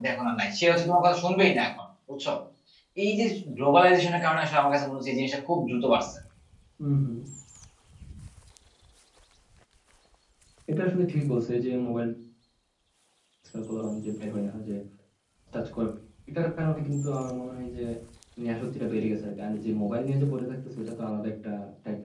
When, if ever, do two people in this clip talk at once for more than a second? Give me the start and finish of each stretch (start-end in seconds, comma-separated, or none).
none